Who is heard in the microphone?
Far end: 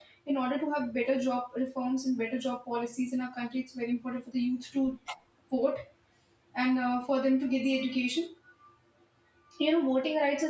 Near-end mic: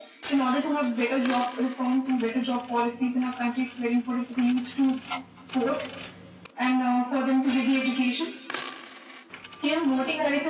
echo only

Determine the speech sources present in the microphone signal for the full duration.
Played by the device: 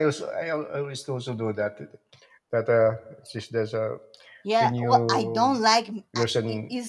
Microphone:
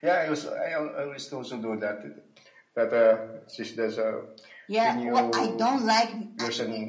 echo only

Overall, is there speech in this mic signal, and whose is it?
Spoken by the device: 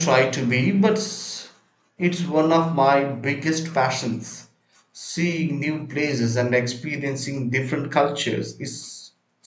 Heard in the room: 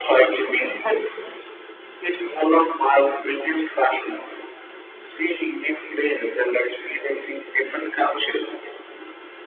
echo only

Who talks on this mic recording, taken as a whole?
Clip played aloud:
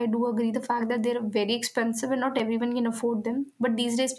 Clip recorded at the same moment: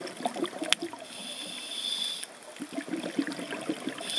neither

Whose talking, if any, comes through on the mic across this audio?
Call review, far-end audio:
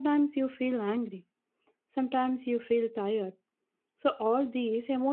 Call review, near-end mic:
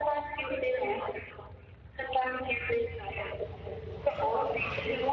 echo only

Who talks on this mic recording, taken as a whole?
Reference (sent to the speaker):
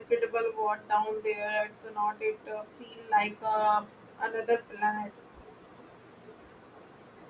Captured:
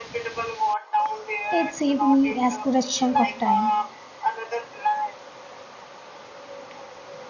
both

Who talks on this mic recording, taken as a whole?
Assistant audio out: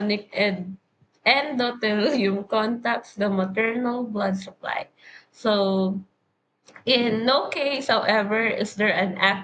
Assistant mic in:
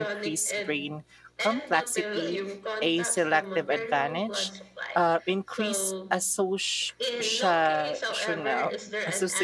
both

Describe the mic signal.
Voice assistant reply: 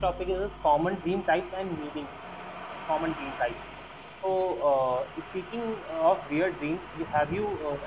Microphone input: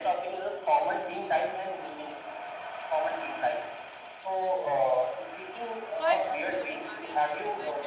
both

